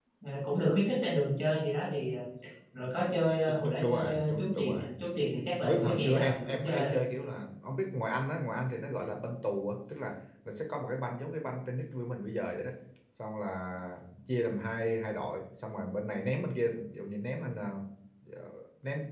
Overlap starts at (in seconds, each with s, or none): 3.5 s